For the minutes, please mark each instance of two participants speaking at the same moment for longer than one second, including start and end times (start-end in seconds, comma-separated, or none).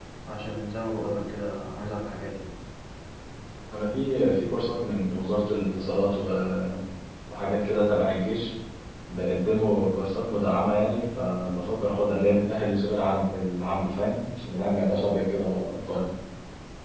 none